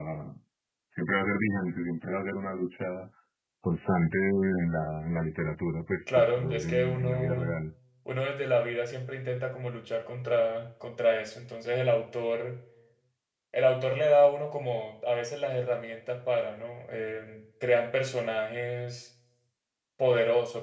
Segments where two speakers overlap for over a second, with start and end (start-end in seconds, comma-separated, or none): 6.2-7.6